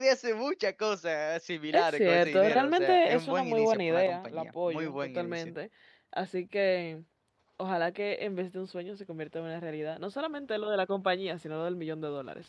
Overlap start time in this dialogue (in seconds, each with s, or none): 1.7 s